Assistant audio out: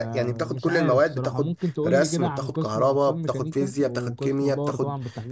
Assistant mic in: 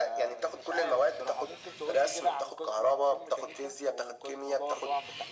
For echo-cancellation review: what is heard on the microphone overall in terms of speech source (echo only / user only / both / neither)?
echo only